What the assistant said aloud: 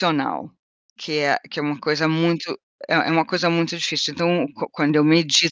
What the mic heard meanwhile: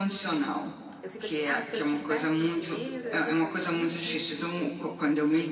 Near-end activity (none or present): present